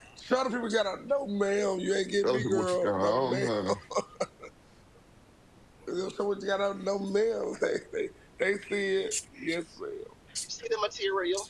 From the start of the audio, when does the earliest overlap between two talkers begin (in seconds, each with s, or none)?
2.2 s